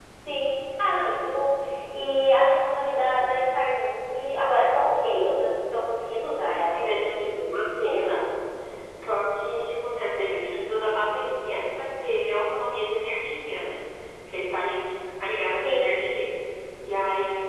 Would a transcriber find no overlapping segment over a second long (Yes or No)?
Yes